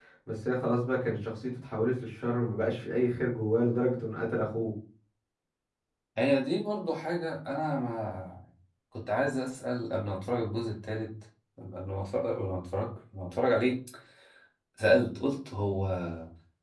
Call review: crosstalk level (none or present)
none